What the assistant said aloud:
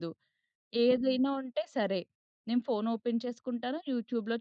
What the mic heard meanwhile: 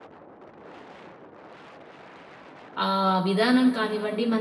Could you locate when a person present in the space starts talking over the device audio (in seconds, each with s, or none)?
2.8 s